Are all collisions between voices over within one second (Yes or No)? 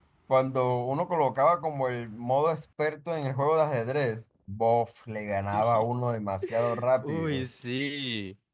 Yes